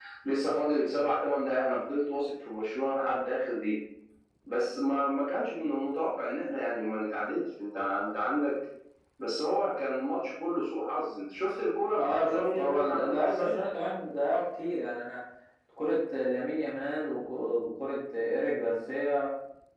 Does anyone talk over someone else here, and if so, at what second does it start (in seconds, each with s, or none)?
11.9 s